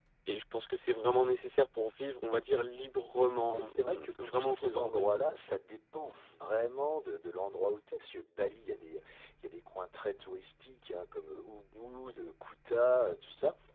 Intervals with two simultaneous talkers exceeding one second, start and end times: 3.6-5.1

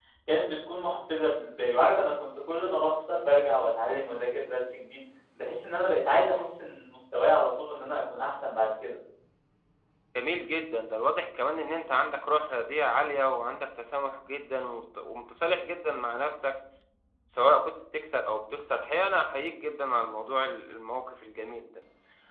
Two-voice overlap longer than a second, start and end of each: none

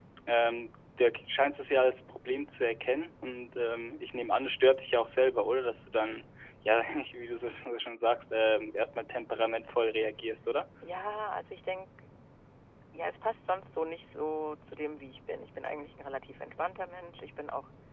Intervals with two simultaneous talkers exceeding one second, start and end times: none

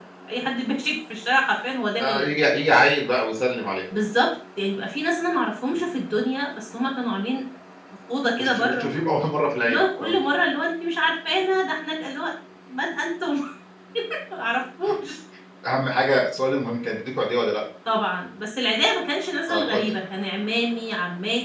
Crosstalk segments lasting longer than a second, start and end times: none

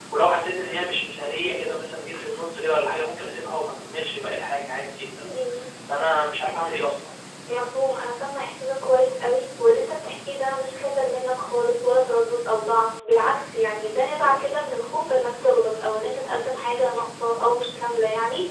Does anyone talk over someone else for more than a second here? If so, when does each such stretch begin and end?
none

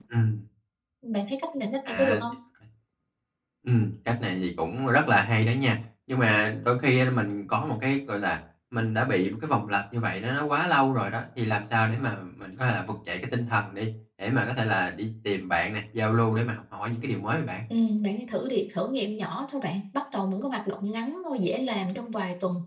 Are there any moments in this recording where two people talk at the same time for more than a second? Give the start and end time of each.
none

